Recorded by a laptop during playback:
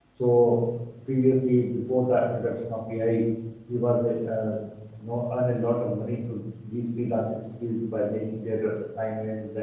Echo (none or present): none